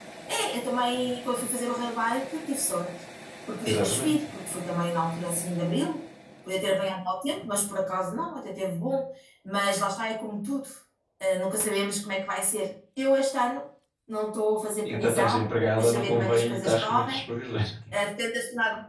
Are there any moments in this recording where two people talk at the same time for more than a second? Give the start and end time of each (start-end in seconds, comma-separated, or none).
14.9-17.2